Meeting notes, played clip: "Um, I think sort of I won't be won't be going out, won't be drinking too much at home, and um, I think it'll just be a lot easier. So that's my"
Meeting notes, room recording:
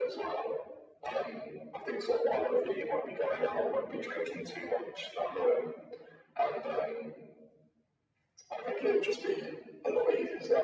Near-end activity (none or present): none